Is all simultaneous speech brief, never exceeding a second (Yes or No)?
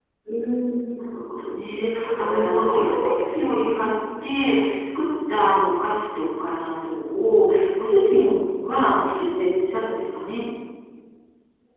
No